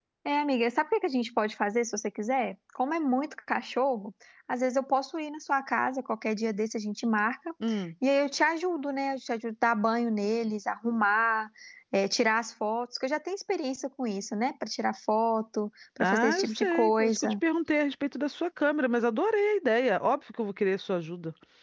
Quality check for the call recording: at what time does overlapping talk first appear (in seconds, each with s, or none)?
16.0 s